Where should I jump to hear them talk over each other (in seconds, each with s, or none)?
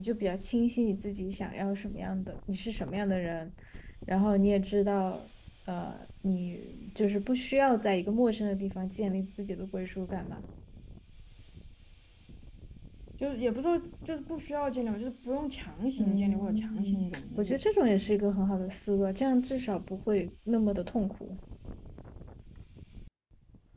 16.0 s